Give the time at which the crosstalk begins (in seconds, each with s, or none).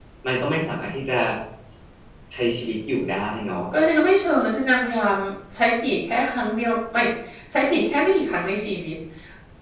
none